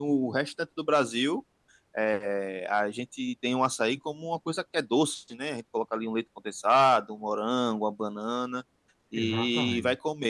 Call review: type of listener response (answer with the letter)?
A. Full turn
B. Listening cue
B